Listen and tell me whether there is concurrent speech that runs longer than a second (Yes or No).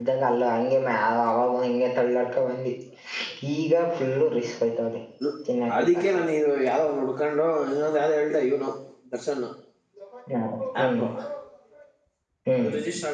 No